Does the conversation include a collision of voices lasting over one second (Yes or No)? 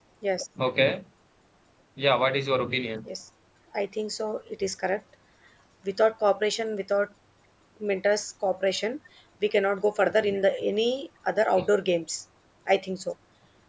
No